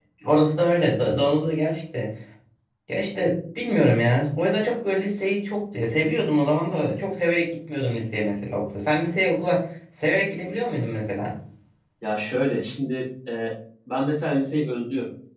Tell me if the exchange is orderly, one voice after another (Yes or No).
Yes